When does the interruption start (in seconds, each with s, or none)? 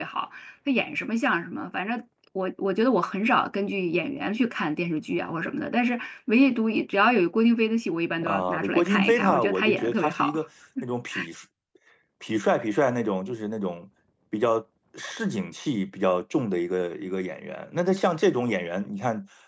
8.2 s